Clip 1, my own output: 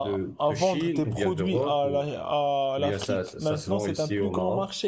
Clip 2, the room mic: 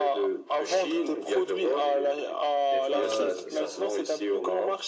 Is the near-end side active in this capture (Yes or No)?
Yes